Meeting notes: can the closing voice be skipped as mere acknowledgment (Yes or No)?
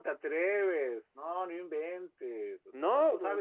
Yes